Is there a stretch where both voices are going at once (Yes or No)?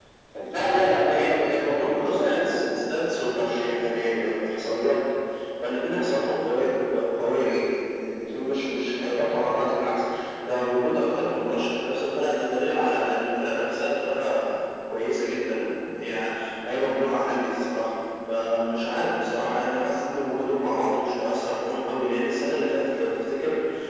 Yes